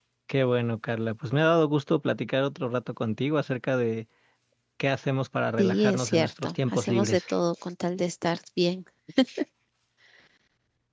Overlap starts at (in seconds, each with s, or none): 5.6 s